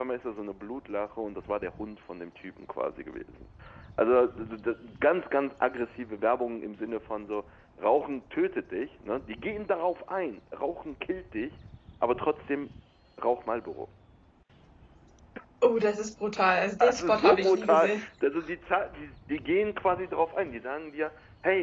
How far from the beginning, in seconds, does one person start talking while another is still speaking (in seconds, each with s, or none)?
16.8 s